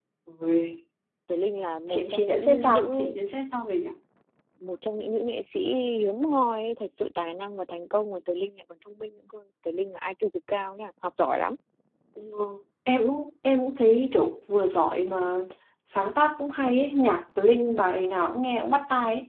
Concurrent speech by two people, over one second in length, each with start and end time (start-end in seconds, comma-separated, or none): 1.9-3.1